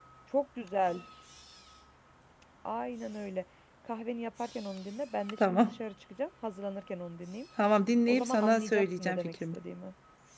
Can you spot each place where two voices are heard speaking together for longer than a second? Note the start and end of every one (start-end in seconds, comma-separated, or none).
8.1-9.6